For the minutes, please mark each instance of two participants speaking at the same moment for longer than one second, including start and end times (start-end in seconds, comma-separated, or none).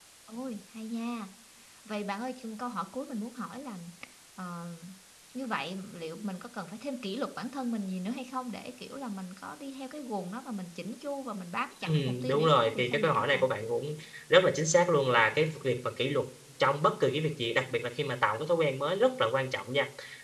11.9-13.4